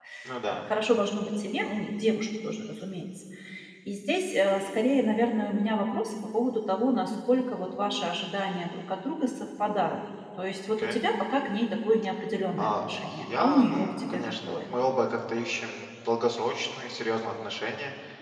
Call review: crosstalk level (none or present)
present